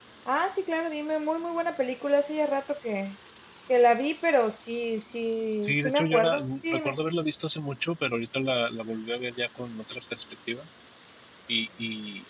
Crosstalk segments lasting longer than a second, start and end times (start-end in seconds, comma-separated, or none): 5.6-7.0